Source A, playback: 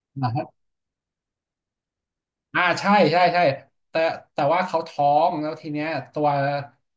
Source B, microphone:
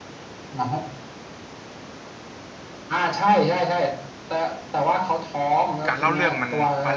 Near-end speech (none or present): present